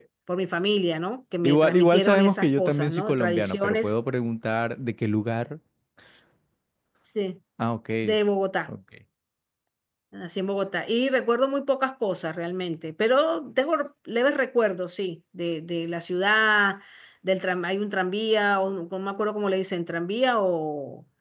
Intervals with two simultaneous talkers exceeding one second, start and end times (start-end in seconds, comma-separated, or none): 1.4-3.9